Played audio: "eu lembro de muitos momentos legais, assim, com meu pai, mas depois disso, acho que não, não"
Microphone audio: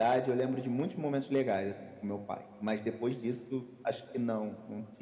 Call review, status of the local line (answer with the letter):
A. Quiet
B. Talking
A